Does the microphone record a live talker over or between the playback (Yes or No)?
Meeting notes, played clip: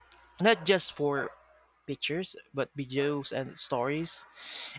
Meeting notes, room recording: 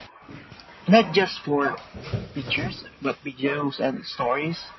No